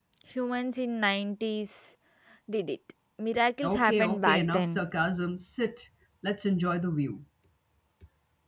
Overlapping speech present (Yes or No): Yes